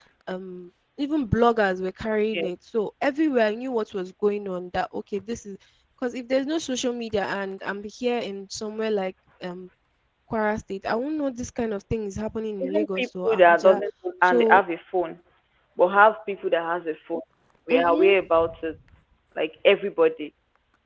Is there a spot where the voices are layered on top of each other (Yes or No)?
Yes